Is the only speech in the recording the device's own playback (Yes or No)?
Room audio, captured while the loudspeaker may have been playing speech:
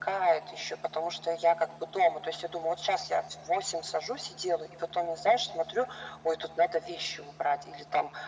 Yes